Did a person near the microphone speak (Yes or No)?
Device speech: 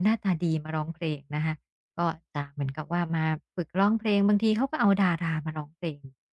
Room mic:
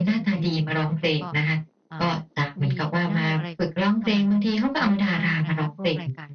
Yes